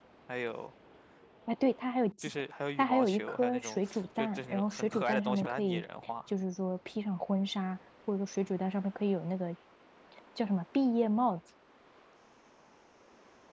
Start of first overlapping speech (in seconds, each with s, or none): 2.8 s